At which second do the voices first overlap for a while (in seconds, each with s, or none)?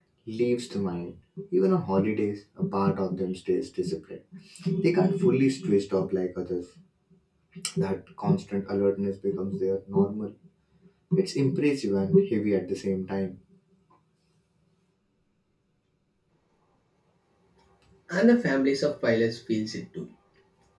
none